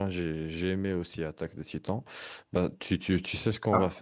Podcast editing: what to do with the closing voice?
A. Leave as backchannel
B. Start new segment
A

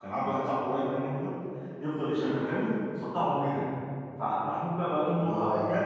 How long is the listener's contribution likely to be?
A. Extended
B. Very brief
B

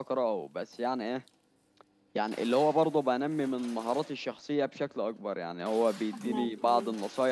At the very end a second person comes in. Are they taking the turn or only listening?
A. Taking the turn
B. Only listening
B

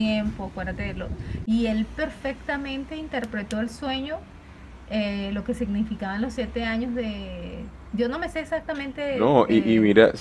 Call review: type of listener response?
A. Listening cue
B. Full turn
B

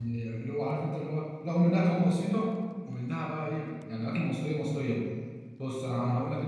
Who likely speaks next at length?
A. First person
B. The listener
A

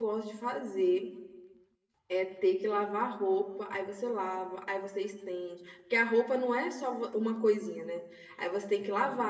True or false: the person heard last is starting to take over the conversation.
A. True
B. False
B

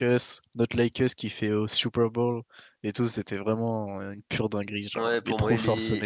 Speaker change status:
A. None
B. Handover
B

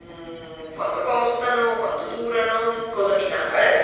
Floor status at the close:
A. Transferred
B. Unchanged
B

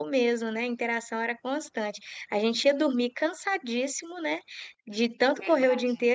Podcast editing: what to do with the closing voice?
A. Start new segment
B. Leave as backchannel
B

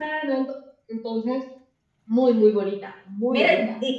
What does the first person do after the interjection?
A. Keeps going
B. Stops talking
B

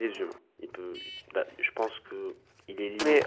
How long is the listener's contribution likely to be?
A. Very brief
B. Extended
B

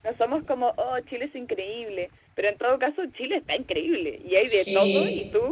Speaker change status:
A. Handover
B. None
B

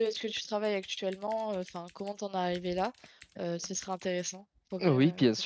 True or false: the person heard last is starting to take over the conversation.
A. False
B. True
B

